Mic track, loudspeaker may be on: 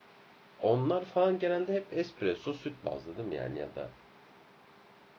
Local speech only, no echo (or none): onlar falan genelde hep espresso süt bazlı değil mi yani ya da